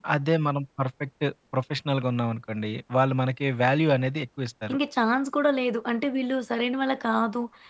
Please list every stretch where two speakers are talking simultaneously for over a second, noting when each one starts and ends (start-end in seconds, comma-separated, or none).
none